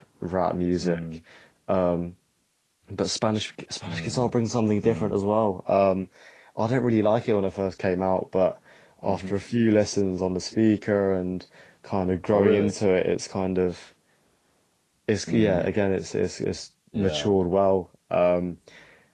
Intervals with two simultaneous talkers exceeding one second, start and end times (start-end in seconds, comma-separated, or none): none